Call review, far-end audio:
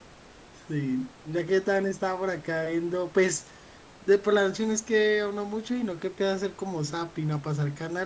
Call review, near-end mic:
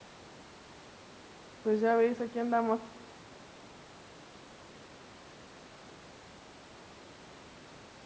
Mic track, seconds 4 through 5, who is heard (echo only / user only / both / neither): neither